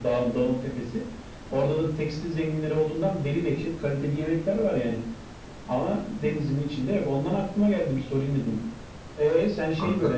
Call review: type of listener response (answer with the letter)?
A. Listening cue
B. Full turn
A